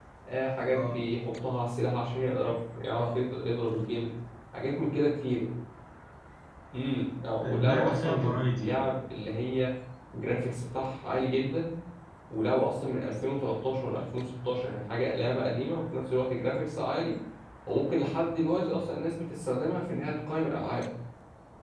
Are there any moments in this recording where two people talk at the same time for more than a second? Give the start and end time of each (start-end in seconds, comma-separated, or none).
7.4-8.9